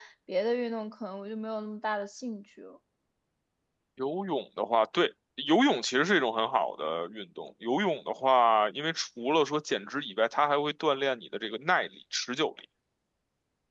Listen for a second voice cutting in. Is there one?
No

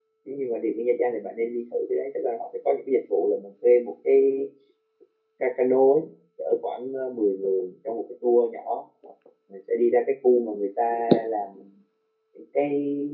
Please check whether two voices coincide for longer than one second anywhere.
No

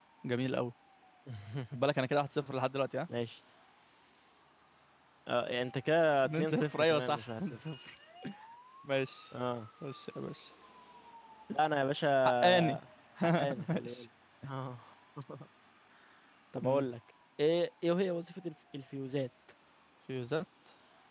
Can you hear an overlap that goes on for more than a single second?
Yes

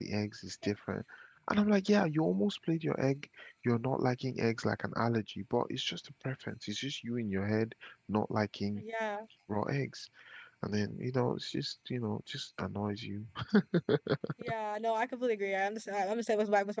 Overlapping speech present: No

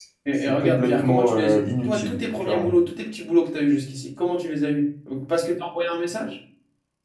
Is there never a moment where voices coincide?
No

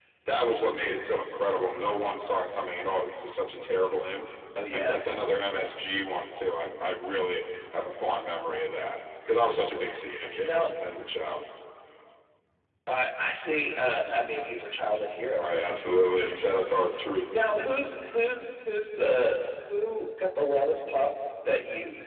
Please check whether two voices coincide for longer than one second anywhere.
No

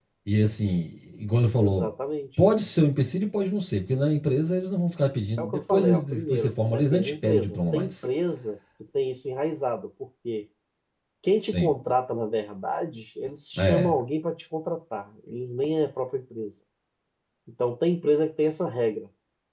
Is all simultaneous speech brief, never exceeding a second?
No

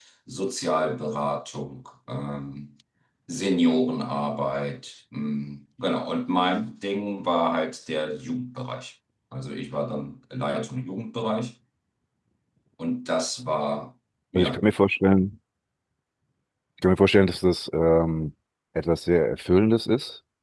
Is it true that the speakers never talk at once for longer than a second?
Yes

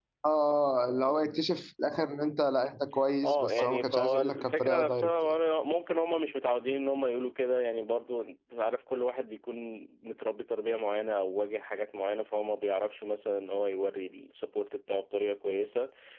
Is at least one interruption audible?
Yes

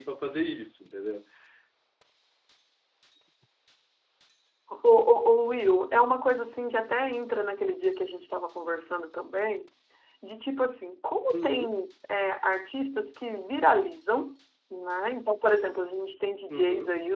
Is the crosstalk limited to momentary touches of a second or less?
Yes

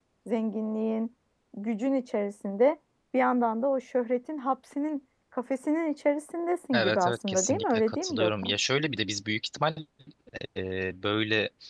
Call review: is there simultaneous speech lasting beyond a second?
Yes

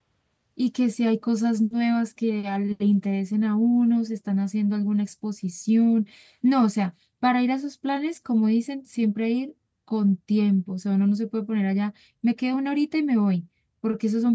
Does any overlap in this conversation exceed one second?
No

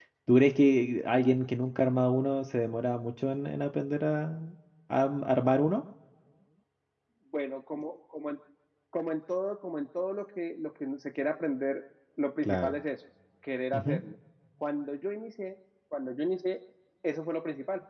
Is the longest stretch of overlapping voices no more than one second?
Yes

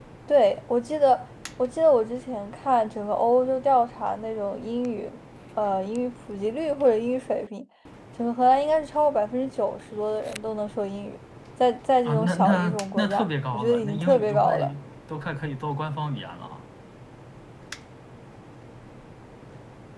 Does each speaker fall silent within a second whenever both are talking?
No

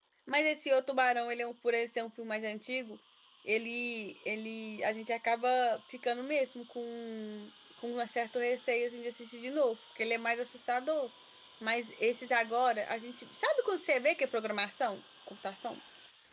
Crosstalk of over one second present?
No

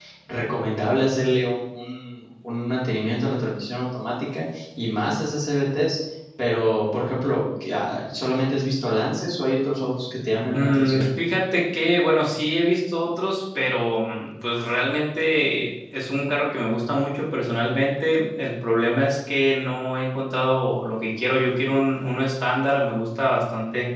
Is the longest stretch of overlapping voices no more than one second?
Yes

